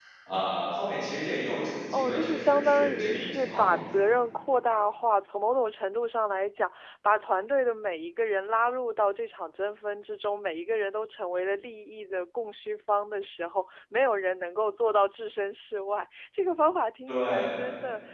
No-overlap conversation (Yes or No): No